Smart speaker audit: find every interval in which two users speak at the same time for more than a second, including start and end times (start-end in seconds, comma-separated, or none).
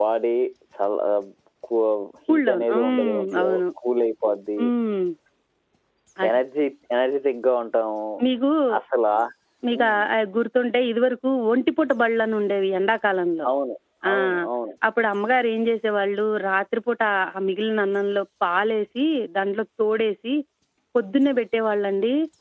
2.3-3.6